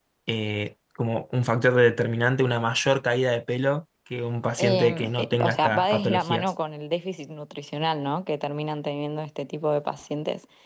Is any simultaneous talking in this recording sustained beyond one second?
Yes, from 4.6 s

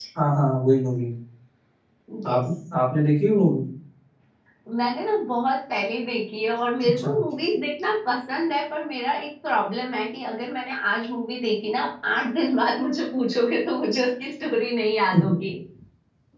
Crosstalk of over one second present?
No

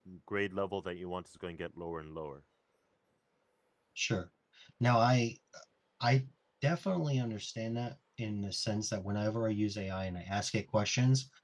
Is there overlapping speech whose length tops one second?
No

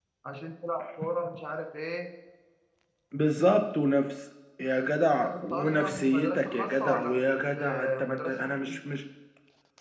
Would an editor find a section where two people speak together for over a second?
Yes, from 5.2 s

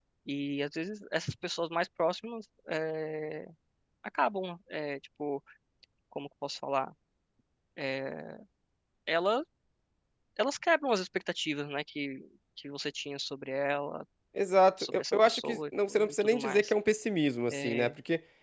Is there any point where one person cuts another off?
Yes, from 14.9 s

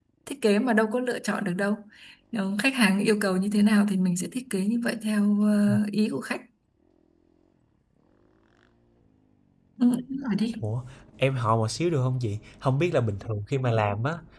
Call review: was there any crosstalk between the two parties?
No

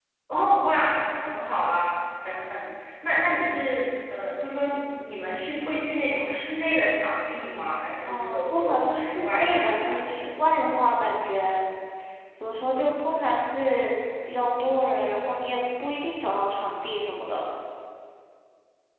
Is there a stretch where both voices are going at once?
Yes, from 8.1 s

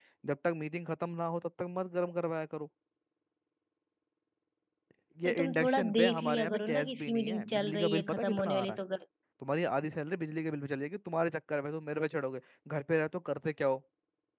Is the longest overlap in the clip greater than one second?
Yes, from 5.2 s

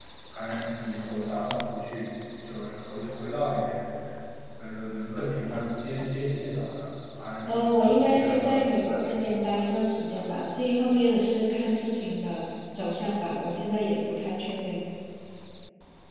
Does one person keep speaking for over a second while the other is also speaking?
Yes, from 7.5 s

